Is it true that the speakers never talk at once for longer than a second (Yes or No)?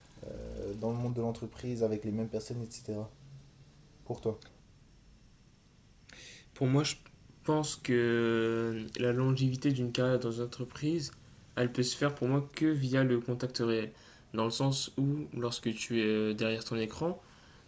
Yes